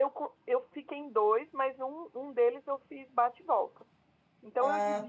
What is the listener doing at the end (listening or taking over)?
listening